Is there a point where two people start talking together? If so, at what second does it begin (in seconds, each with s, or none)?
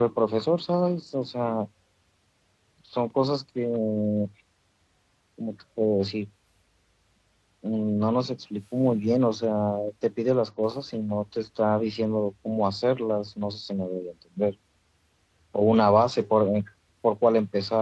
none